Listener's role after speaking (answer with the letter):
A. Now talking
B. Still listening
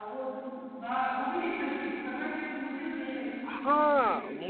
A